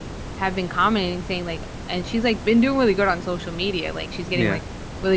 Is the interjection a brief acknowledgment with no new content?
Yes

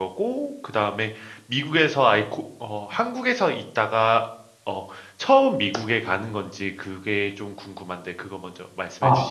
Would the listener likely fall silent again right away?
No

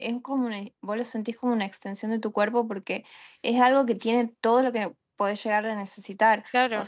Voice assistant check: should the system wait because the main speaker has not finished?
Yes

